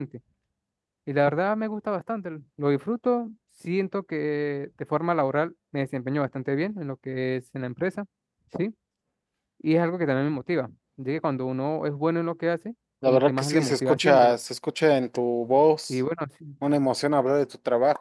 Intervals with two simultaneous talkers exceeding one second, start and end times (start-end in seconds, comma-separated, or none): 13.1-14.4